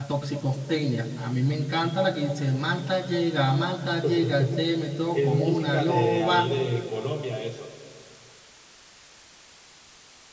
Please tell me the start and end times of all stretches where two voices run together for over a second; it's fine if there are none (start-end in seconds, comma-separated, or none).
5.1-6.5